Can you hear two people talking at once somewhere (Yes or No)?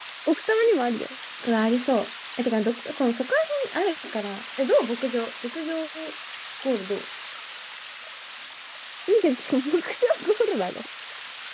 No